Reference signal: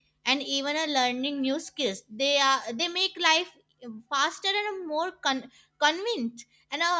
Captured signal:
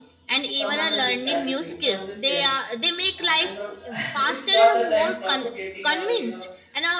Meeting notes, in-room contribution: present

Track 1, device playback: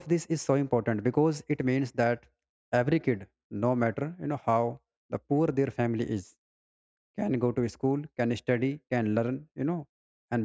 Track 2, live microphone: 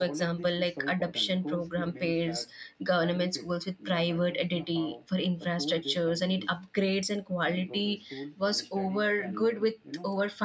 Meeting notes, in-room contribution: present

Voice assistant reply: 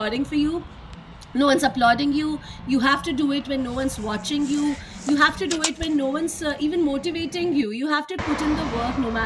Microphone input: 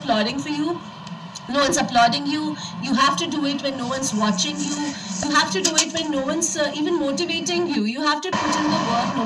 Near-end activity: none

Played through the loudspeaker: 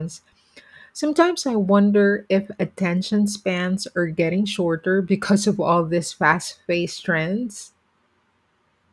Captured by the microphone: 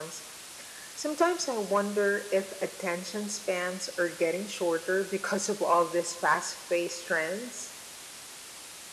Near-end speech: none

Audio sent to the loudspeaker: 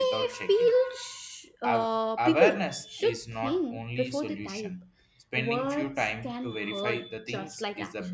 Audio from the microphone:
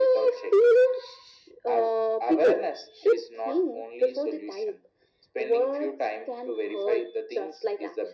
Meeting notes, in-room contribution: none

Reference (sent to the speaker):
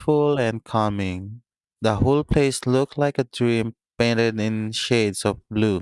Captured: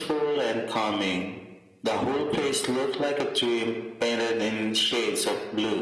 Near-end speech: none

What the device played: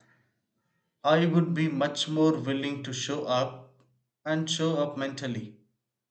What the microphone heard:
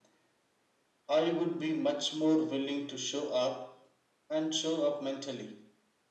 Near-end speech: none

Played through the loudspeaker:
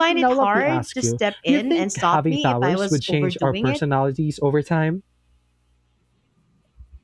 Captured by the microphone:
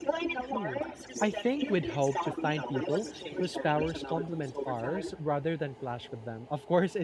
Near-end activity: present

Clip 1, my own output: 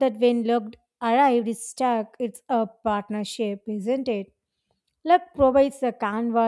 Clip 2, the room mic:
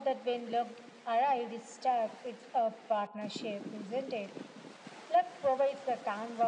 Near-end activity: none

